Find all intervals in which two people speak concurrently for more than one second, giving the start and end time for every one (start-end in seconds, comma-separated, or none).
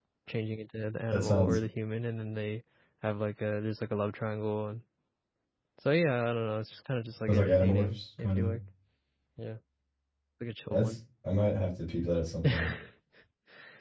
7.3-8.5